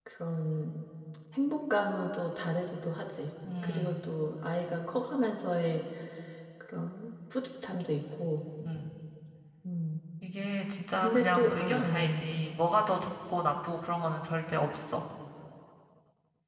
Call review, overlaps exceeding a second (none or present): present